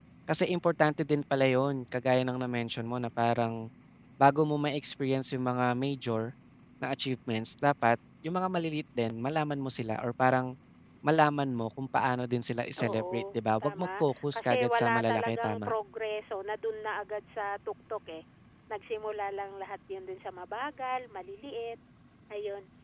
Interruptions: present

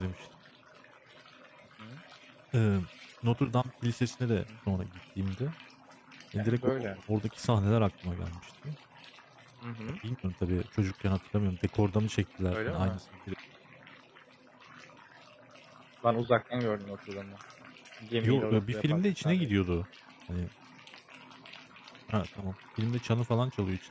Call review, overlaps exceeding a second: present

